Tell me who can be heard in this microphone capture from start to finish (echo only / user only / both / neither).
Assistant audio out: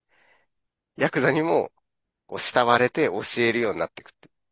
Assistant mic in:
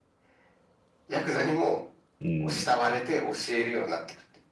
both